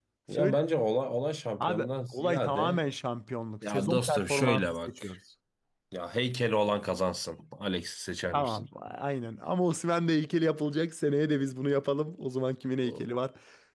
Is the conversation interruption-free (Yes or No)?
No